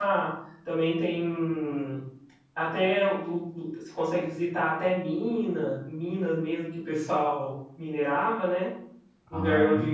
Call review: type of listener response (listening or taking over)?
listening